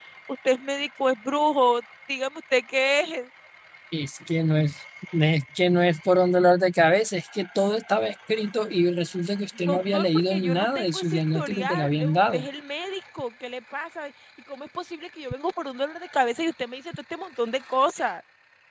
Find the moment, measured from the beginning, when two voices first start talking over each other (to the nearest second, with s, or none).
10 s